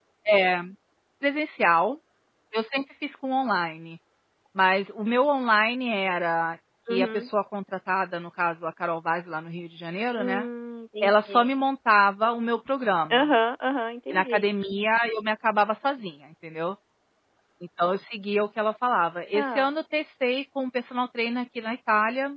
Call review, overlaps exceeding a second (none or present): none